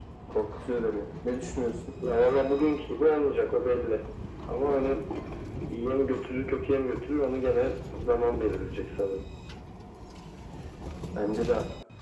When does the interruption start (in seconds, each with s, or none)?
none